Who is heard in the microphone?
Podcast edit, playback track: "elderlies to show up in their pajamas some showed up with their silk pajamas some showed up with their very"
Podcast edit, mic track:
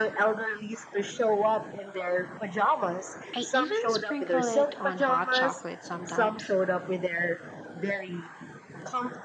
both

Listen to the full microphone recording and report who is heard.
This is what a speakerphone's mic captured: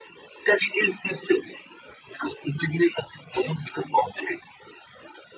echo only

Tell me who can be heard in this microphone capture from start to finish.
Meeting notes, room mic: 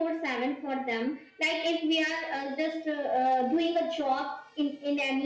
echo only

